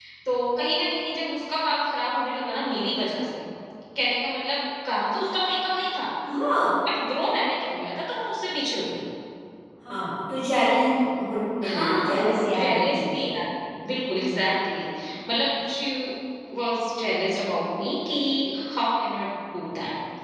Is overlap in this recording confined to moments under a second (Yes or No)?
No